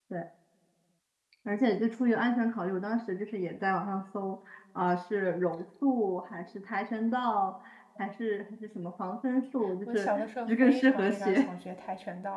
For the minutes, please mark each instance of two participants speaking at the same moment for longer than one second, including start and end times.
9.8-11.5

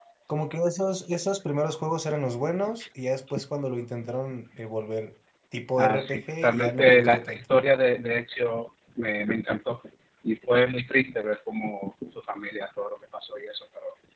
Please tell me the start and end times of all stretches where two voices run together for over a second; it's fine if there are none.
5.8-7.4

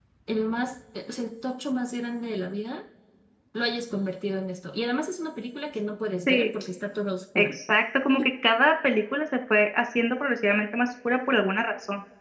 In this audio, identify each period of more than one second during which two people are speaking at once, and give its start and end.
none

